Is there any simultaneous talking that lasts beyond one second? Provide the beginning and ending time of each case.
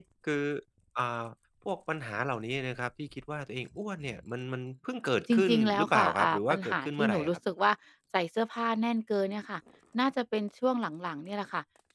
5.3-7.4

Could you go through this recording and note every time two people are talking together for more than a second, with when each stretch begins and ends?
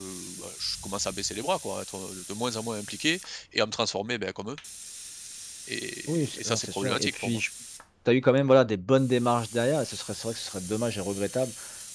6.1-7.4

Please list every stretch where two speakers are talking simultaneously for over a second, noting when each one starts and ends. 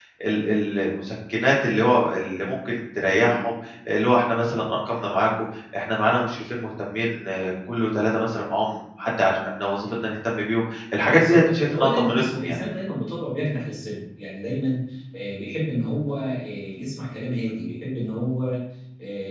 11.0-12.6

